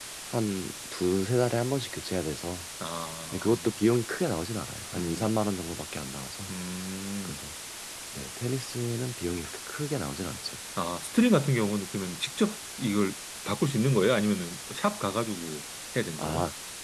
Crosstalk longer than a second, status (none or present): none